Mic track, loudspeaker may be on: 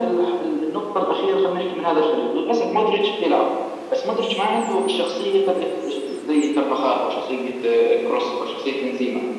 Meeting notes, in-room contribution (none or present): none